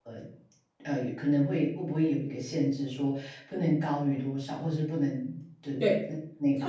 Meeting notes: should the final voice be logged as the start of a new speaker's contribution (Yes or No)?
Yes